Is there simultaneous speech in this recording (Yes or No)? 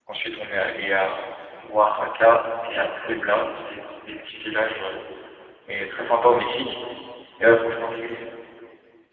No